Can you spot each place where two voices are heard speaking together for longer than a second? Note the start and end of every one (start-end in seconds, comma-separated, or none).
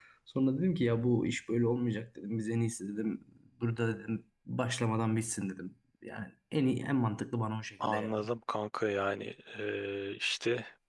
none